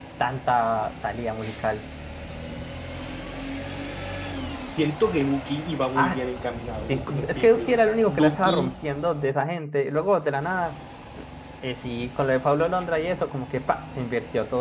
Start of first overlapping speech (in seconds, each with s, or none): 6.0 s